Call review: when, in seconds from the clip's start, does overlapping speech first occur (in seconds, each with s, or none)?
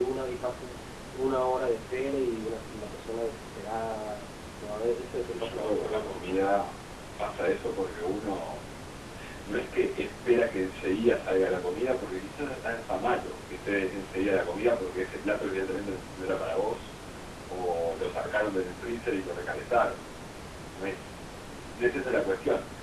5.1 s